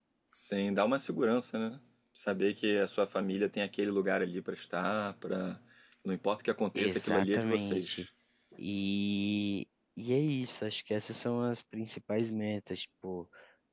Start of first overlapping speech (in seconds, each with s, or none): 6.8 s